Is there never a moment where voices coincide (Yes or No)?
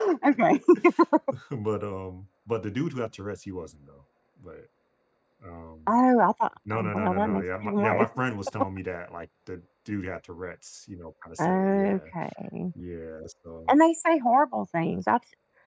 No